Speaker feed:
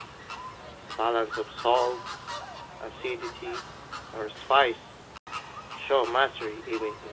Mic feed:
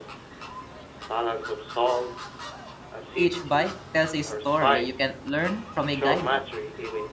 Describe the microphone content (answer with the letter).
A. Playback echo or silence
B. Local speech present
B